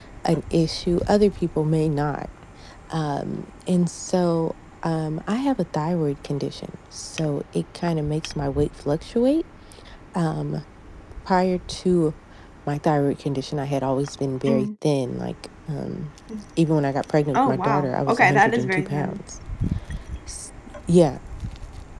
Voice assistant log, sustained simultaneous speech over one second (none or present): present